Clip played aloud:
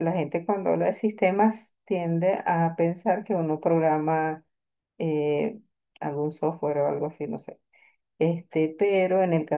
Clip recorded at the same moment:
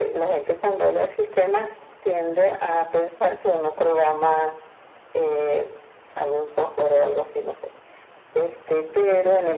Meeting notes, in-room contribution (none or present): none